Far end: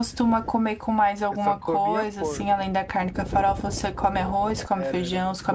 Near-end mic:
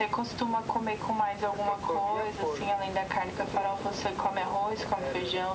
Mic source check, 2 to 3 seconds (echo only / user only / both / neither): echo only